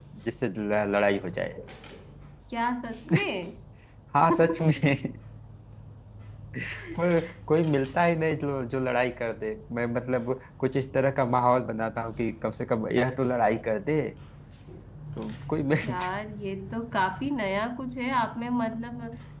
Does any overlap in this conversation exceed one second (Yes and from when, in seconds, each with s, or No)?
No